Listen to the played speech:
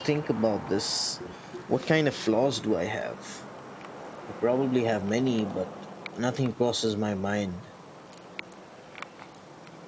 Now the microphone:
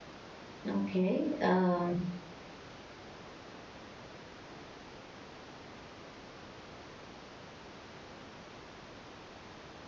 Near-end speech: present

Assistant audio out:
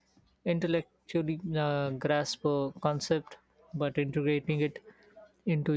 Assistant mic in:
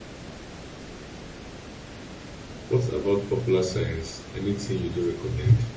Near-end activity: present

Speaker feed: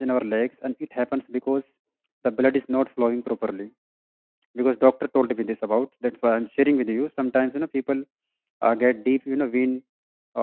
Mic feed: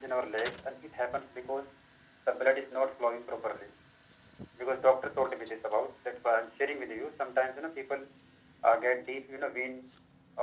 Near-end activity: none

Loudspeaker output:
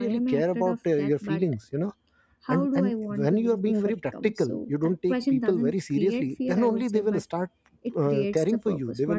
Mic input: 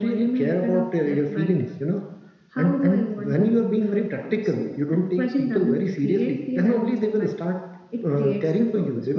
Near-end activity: none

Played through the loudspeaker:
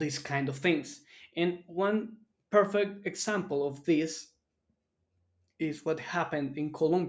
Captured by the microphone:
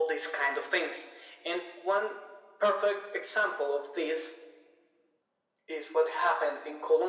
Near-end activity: none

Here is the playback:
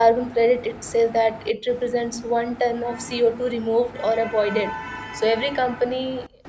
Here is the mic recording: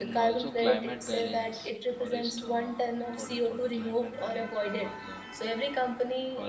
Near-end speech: present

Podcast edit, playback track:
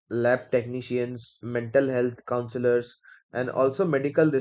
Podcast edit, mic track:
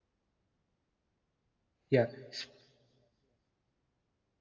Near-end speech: present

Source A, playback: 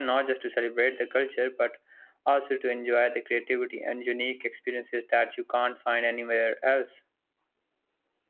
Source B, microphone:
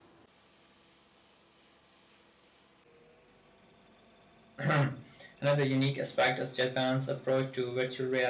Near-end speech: present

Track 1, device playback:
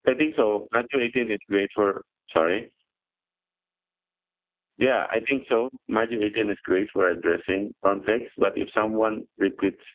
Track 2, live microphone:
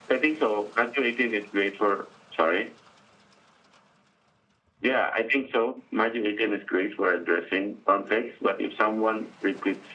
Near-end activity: none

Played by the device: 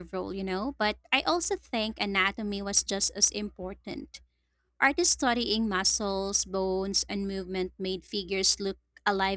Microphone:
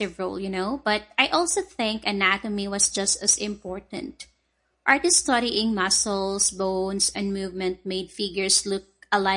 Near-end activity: none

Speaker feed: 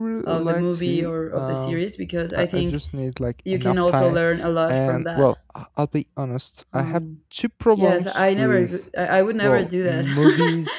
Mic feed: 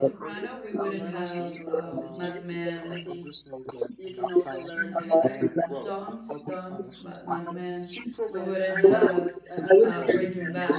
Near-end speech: present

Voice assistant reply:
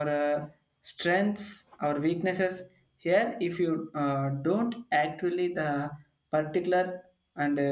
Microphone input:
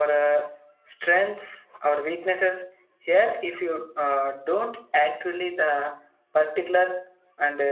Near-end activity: none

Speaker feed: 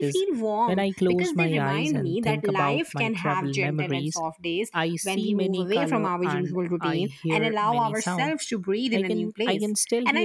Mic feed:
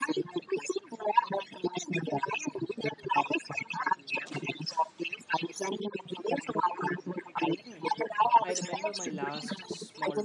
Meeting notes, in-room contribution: present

